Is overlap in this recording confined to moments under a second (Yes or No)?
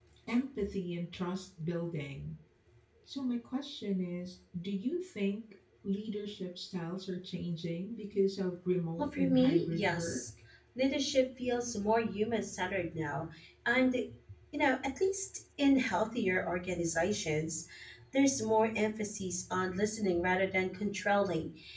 No